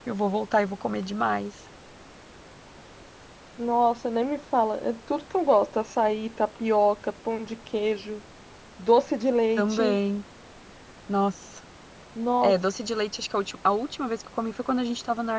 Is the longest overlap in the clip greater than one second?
No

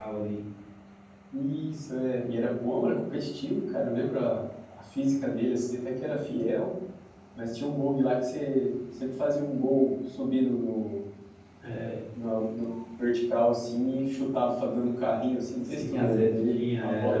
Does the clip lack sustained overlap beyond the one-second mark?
No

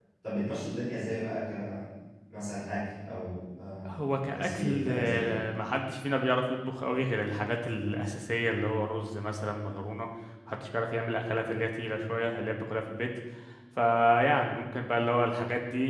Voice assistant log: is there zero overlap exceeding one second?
No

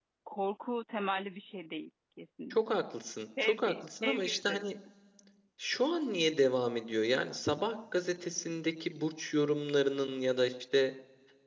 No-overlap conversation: No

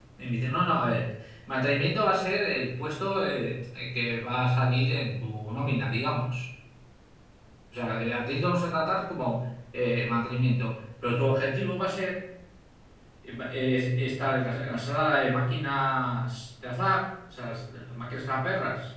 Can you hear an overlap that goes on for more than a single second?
No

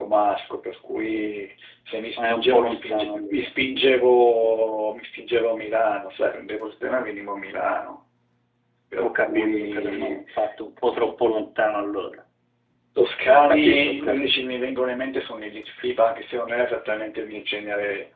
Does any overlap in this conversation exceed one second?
Yes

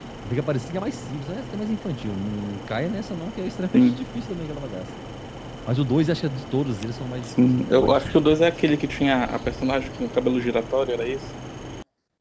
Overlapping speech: Yes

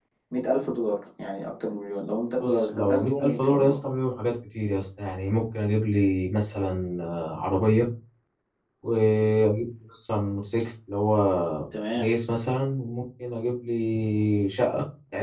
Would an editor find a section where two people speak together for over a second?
Yes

